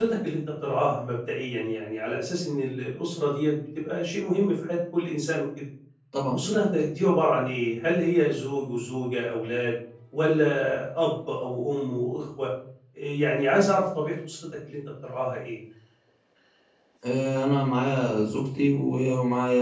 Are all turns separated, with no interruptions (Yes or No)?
Yes